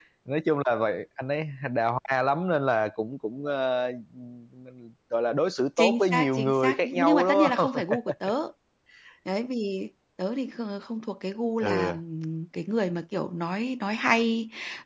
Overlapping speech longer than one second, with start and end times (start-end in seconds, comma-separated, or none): 5.8-7.8